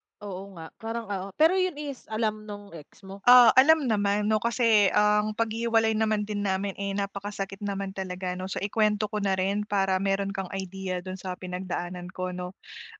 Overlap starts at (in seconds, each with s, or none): none